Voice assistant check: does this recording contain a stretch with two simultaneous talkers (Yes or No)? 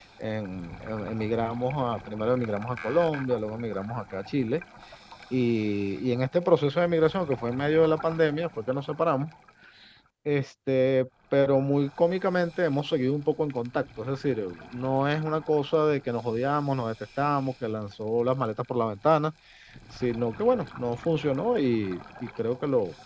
No